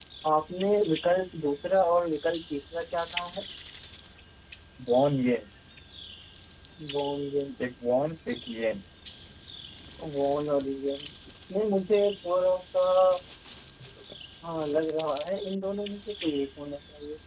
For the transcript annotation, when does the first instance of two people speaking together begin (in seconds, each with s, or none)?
none